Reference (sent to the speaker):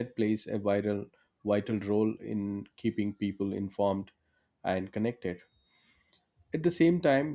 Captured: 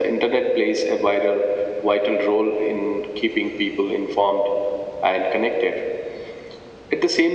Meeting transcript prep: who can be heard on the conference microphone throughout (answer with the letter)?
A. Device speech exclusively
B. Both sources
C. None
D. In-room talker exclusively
A